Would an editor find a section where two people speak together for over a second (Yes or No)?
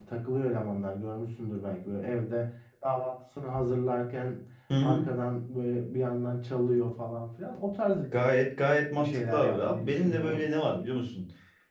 Yes